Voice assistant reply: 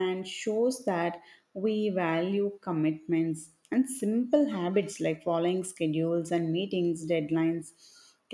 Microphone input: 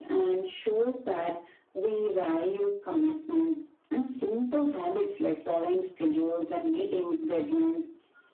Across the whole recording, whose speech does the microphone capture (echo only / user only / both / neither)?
echo only